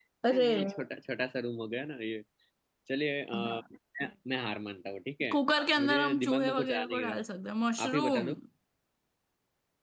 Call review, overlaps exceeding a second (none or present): present